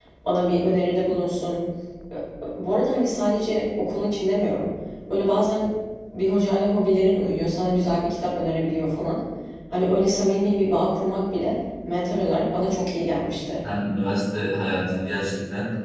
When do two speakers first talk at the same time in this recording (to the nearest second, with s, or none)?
none